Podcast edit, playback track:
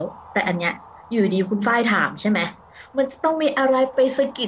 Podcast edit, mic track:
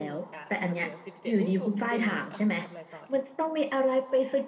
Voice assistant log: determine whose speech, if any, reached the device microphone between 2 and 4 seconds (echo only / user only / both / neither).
both